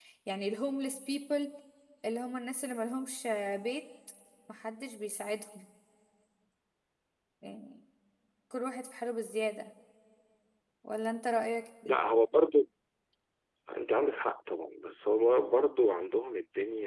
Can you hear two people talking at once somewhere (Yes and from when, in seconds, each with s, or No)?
No